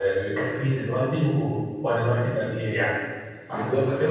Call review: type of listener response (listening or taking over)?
taking over